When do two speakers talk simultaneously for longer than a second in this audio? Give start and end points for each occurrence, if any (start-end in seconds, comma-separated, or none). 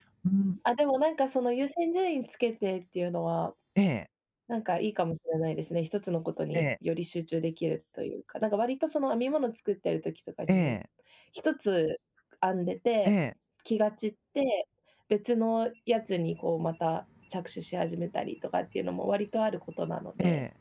none